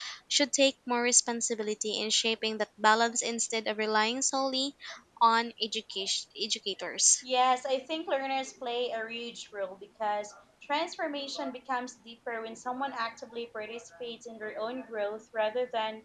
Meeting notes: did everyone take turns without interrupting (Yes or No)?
Yes